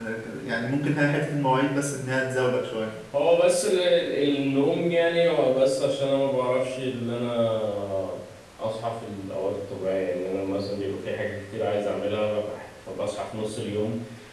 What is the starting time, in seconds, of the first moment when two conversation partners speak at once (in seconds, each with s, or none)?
none